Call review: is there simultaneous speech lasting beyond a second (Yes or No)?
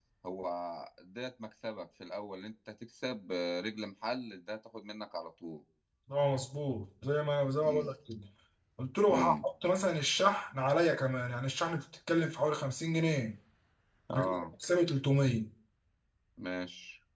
No